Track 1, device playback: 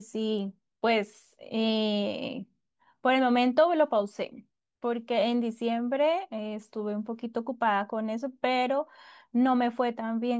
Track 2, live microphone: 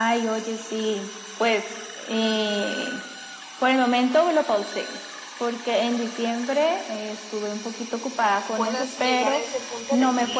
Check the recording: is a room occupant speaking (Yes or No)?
Yes